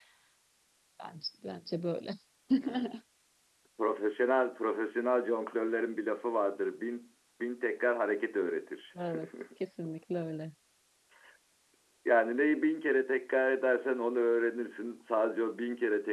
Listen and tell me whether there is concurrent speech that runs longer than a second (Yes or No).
No